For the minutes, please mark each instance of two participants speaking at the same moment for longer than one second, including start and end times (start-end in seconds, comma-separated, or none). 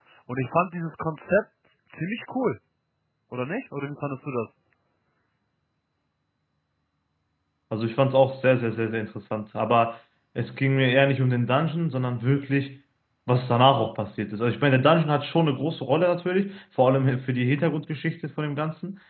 none